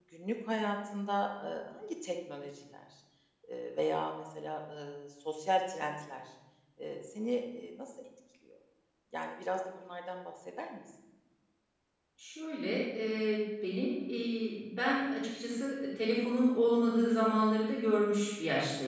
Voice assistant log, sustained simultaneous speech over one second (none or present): none